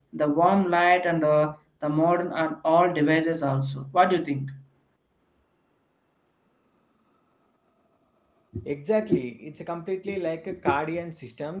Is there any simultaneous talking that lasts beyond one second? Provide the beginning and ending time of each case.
none

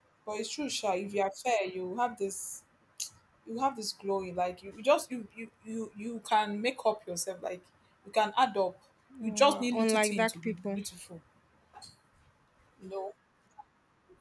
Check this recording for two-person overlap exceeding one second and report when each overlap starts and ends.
9.2-10.8

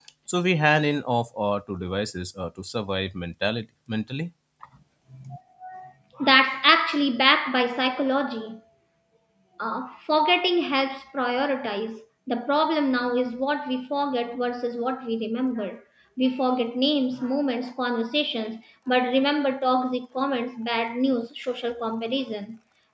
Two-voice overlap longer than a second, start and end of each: none

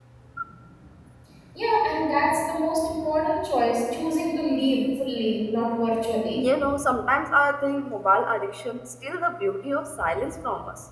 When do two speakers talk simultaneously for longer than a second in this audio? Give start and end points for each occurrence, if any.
none

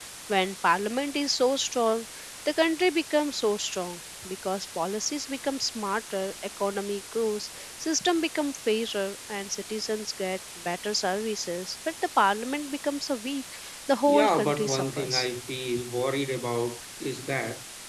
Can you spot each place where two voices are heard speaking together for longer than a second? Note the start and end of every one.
14.1-15.3

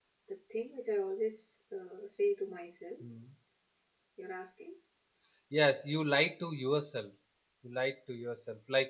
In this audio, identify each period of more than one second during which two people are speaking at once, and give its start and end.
none

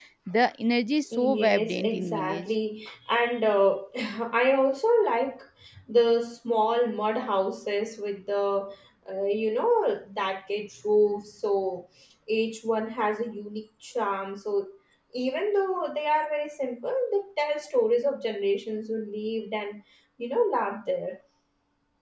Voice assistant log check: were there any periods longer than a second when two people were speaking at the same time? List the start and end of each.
1.2-2.5

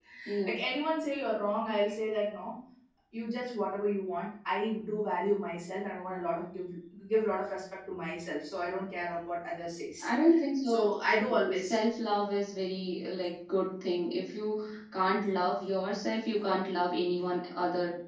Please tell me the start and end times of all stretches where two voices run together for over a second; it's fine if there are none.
none

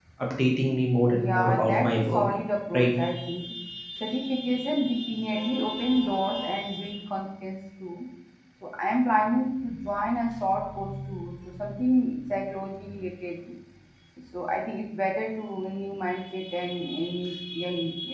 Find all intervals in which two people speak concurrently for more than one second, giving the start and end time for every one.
1.0-2.2

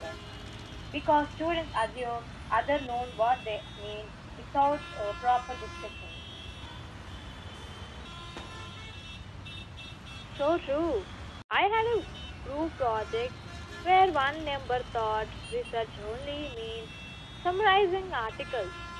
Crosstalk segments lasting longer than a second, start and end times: none

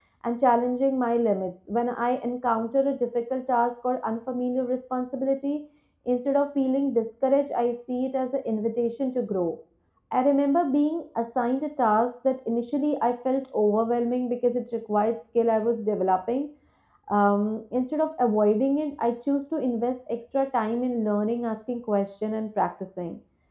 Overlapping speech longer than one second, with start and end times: none

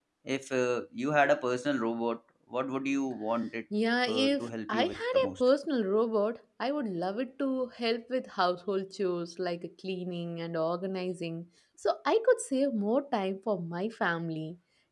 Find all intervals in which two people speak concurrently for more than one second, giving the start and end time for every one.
4.1-5.4

